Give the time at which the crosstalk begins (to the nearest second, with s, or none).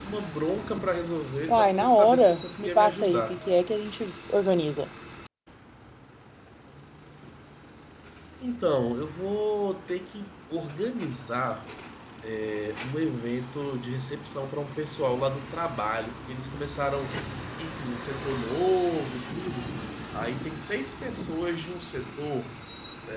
1 s